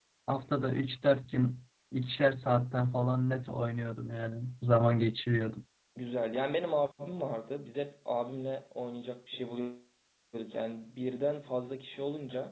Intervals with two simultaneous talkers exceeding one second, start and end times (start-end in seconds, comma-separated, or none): none